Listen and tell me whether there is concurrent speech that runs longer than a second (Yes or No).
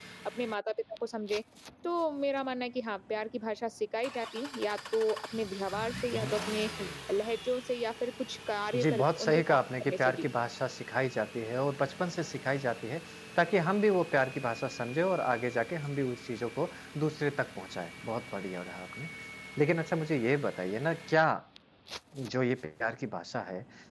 Yes